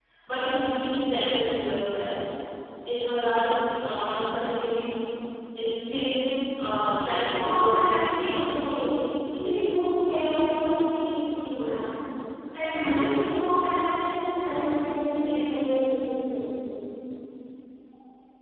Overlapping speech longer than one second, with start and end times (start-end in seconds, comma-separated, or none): none